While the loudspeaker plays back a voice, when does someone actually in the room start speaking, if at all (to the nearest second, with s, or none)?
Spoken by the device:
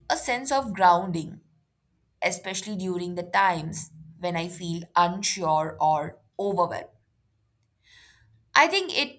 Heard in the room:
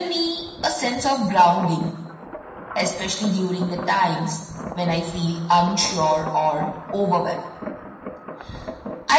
none